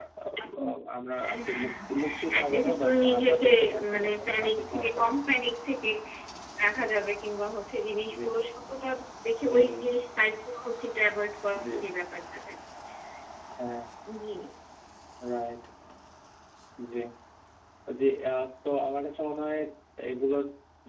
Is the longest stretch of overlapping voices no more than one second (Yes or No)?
No